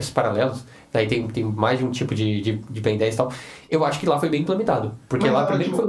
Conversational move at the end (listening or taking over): taking over